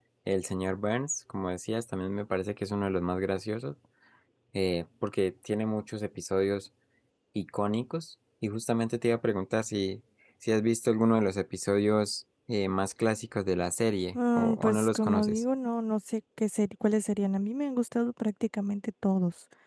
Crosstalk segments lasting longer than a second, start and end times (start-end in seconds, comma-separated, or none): 14.2-15.4